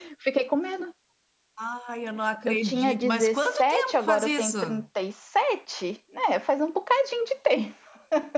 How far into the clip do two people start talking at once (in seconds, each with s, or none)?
2.5 s